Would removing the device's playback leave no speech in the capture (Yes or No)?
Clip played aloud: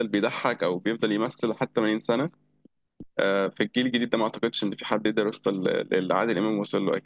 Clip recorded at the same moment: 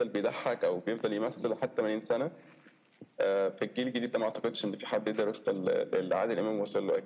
Yes